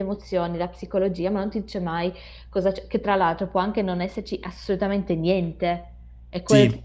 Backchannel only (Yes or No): Yes